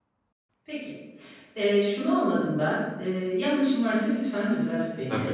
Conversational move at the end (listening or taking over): listening